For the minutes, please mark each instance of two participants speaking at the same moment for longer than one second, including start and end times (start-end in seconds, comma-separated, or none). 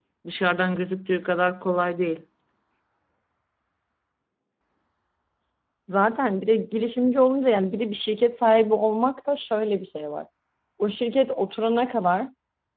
none